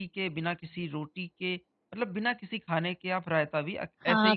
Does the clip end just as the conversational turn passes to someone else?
Yes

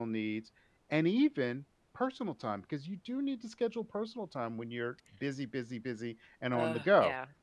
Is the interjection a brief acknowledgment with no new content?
No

